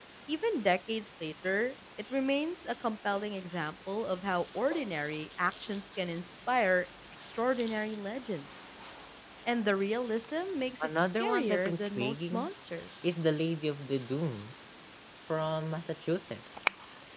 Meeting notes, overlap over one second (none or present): present